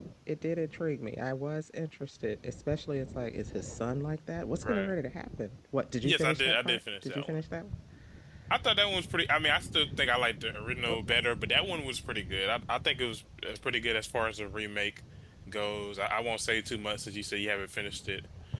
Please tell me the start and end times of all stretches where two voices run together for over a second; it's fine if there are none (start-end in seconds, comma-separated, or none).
6.0-7.4